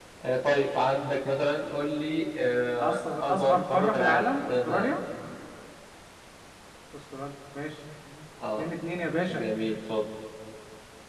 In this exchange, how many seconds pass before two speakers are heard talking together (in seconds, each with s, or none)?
2.8 s